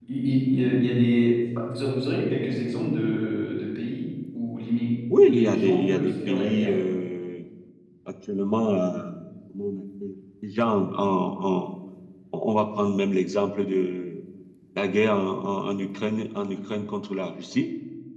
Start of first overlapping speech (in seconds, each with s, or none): 5.1 s